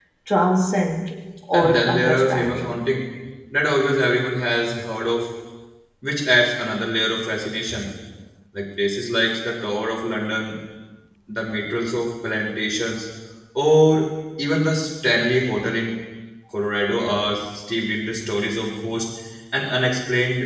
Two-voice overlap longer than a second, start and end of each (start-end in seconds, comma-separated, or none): 1.5-2.8